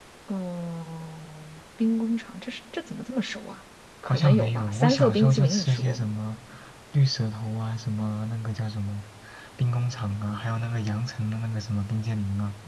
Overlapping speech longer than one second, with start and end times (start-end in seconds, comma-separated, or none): 4.1-6.0